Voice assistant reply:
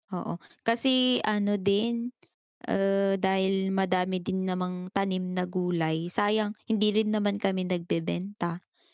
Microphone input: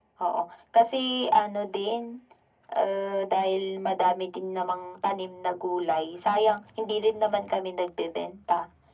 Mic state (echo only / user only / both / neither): echo only